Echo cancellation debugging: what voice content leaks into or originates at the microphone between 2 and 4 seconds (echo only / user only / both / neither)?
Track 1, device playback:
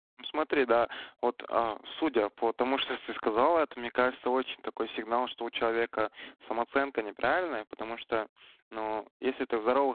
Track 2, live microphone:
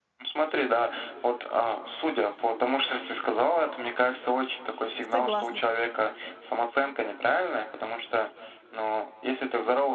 echo only